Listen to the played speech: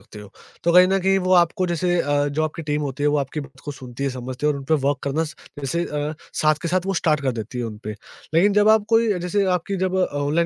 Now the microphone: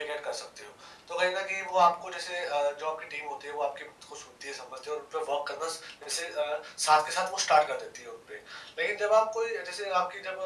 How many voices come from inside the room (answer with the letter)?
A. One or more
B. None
B